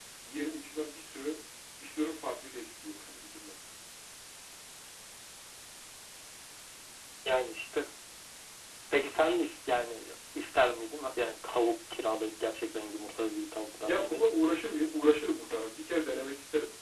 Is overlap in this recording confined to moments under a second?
Yes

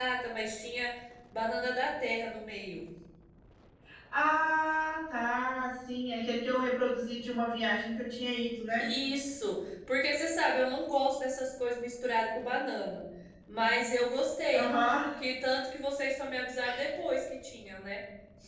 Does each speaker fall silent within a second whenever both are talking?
Yes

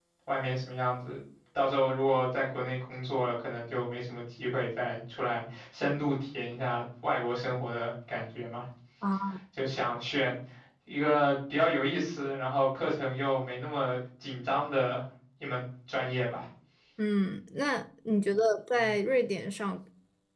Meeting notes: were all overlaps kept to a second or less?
Yes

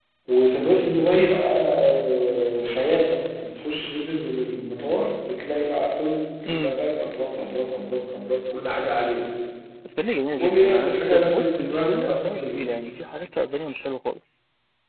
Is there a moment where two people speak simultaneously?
Yes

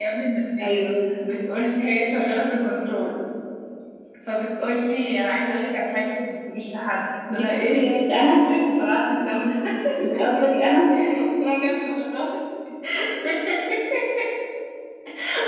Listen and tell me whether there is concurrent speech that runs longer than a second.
Yes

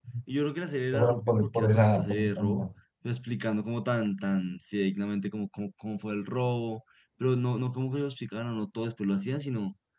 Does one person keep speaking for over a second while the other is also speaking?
Yes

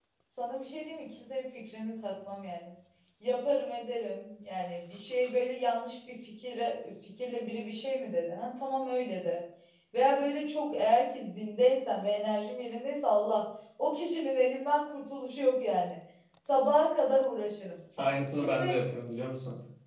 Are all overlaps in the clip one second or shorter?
Yes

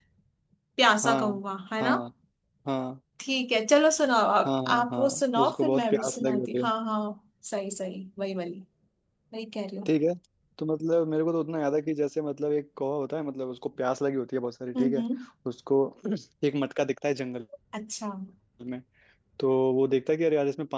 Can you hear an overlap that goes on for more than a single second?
Yes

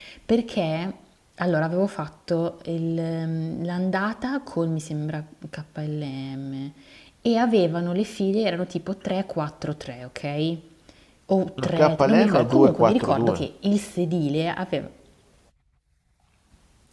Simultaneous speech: Yes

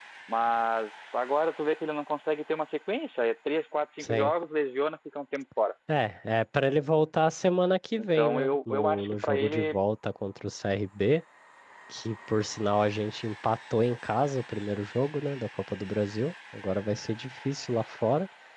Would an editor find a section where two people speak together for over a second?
Yes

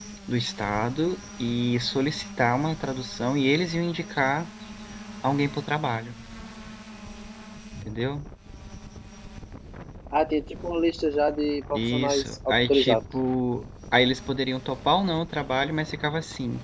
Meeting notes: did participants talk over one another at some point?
Yes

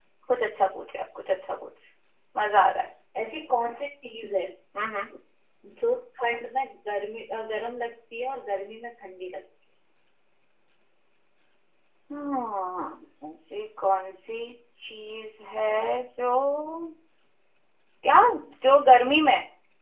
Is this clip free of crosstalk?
Yes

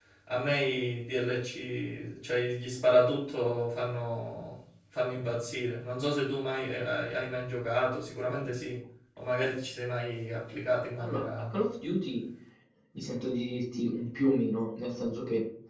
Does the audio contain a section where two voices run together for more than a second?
No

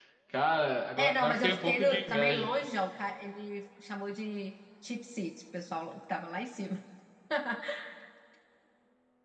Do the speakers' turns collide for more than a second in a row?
Yes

